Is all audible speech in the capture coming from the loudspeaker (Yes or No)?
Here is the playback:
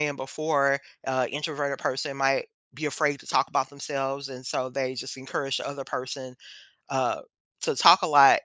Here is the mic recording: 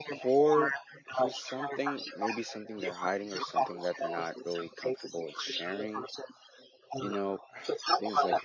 No